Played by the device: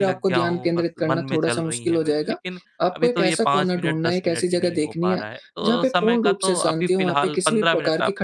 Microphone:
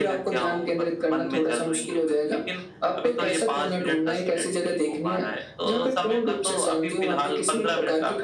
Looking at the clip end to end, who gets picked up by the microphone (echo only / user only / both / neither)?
echo only